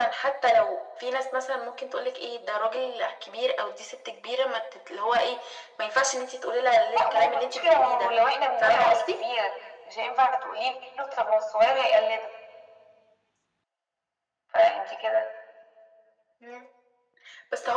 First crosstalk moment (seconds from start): 6.9 s

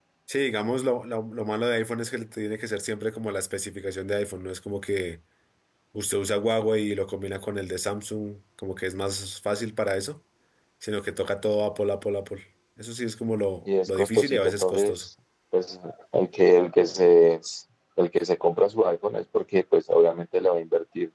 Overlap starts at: 13.7 s

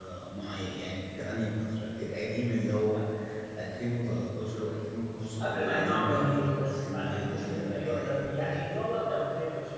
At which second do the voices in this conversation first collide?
5.4 s

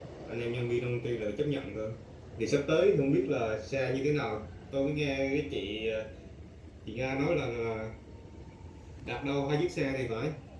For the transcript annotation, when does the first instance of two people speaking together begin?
none

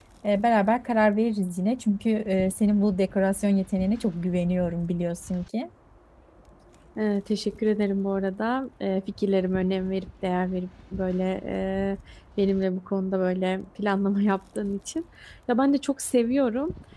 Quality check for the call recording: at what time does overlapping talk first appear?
none

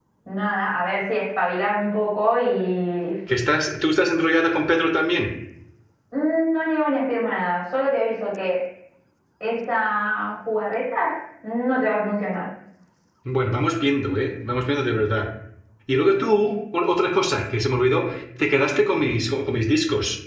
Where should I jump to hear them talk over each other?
none

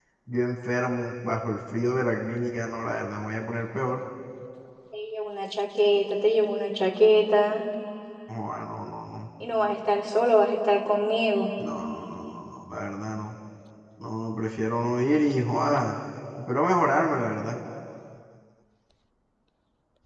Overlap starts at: none

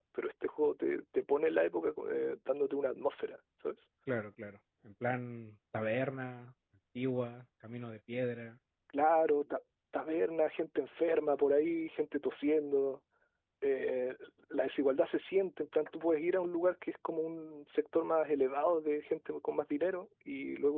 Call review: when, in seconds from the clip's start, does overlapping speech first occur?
none

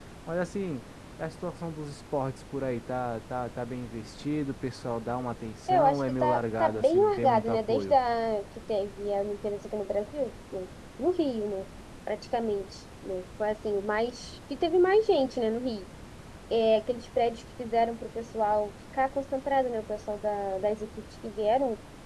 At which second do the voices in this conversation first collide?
5.7 s

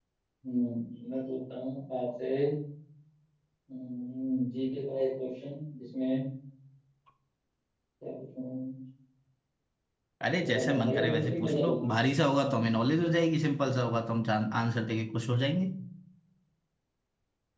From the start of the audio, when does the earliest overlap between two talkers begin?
10.4 s

